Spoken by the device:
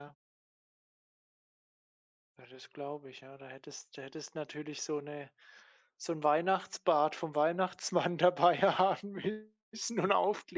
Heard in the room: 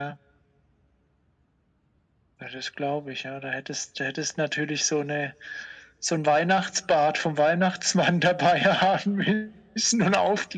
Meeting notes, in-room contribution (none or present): none